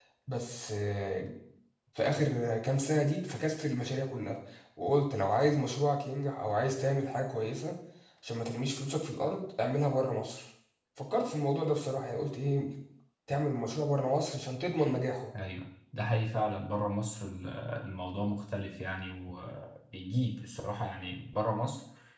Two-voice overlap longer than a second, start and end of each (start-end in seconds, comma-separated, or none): none